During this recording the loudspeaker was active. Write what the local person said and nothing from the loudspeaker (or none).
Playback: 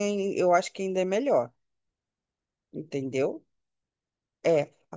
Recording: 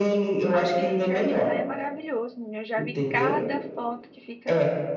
Aquele jardim lá é maravilhoso, menina. Eu já vi cada foto que fica